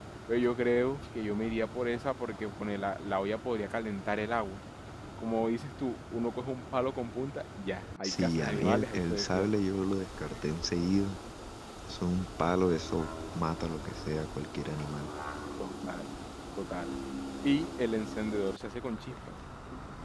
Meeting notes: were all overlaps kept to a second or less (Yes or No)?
No